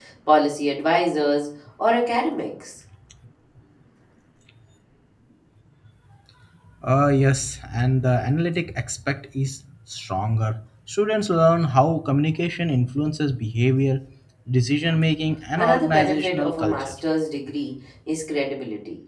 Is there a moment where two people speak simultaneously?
Yes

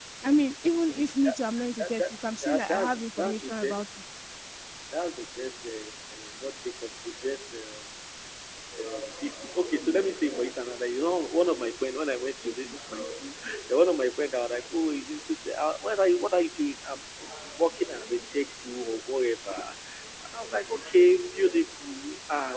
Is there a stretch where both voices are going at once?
Yes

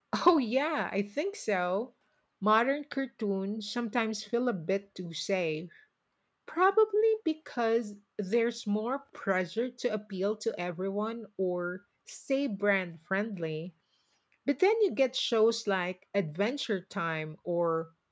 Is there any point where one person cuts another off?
No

